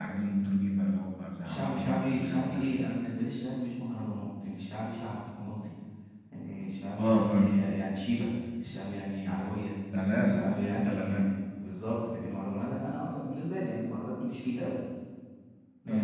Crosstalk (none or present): present